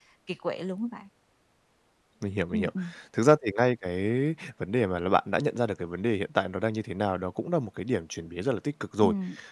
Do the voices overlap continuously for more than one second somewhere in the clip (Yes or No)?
No